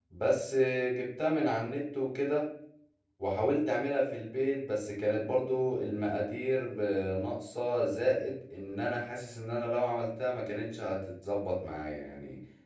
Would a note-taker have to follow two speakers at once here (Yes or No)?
No